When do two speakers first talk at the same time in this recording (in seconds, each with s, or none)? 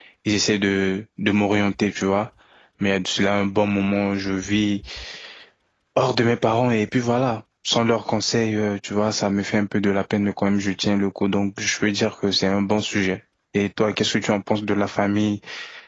none